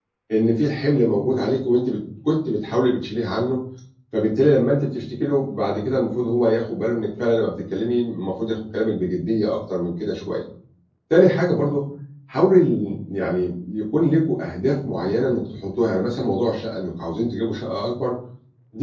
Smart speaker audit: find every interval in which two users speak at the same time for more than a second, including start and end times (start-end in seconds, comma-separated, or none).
none